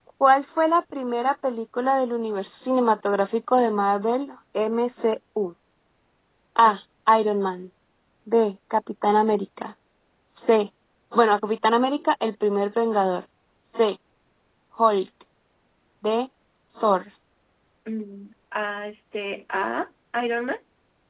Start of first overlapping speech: none

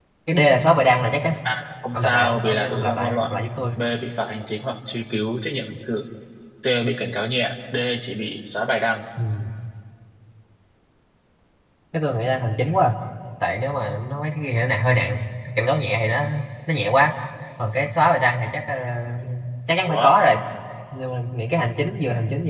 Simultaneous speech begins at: 1.9 s

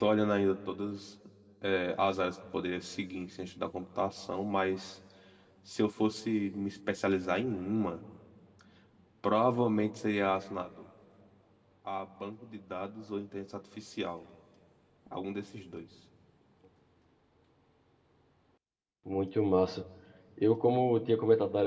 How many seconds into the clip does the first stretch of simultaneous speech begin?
none

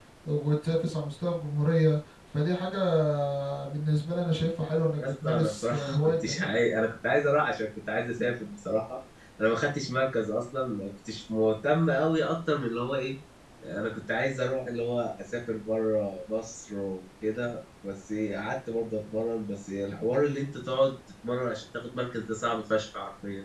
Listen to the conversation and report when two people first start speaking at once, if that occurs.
5.0 s

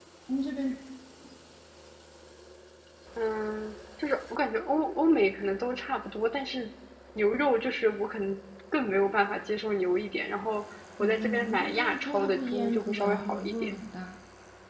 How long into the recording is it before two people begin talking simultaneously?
11.0 s

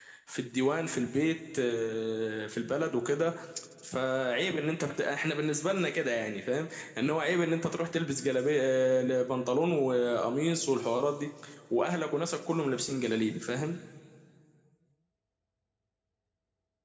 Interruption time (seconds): none

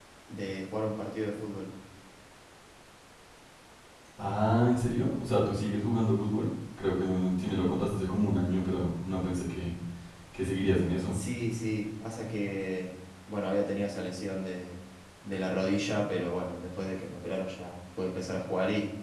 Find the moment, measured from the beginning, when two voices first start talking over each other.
none

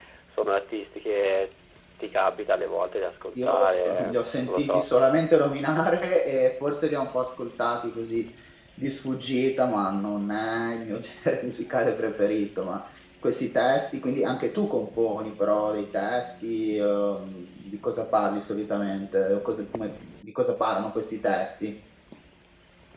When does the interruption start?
3.4 s

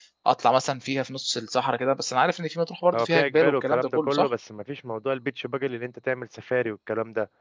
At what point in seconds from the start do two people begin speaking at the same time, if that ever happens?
2.9 s

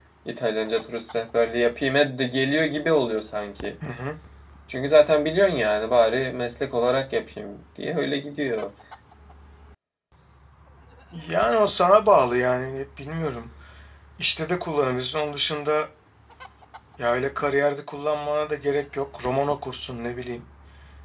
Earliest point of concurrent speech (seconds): none

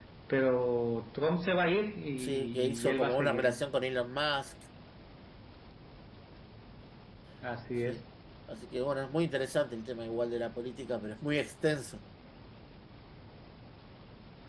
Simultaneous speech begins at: 2.2 s

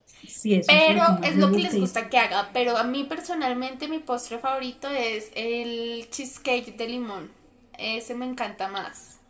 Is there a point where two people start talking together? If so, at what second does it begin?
0.7 s

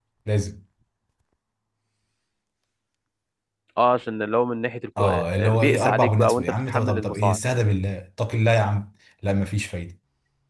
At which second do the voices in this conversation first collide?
5.0 s

